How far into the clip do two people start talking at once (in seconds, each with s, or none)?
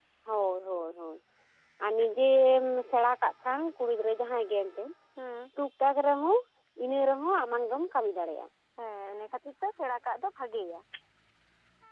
none